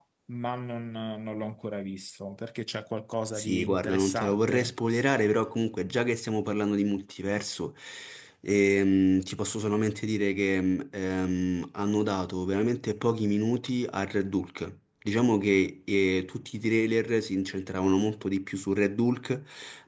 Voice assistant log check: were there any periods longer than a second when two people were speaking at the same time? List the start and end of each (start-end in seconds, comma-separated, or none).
3.4-4.7